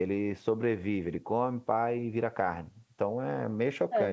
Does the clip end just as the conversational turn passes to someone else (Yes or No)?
No